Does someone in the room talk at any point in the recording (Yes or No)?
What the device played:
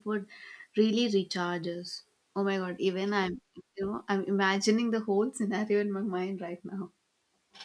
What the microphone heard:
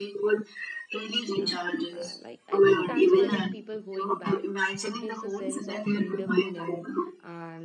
Yes